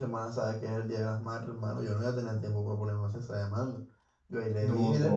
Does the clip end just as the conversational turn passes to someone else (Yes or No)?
No